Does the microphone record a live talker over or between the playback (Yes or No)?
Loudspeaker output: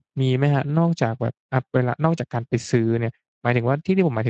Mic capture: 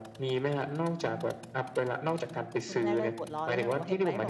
Yes